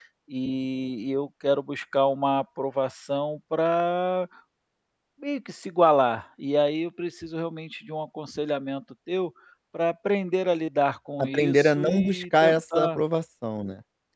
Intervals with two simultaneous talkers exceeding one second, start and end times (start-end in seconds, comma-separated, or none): 11.2-13.0